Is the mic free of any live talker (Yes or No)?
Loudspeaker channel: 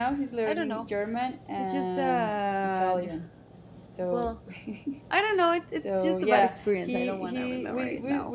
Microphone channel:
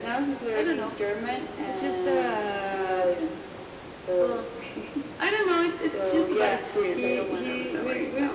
Yes